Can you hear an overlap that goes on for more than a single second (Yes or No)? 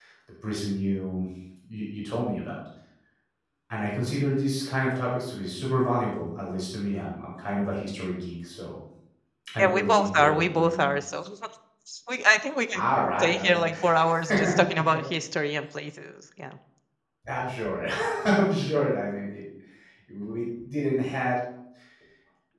Yes